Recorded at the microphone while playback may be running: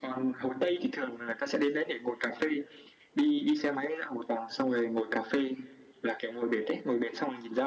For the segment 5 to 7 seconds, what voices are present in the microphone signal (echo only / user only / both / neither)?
echo only